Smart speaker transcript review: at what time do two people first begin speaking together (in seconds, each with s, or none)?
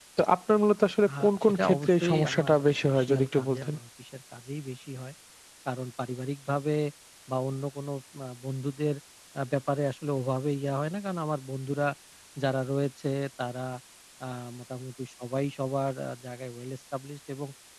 1.1 s